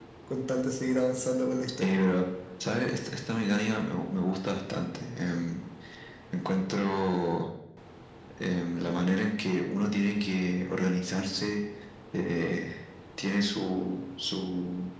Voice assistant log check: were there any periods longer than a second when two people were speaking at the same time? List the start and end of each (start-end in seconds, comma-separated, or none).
none